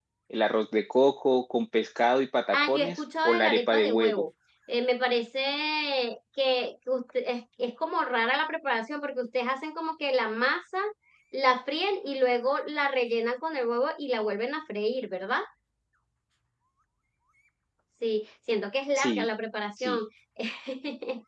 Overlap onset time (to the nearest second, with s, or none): 3 s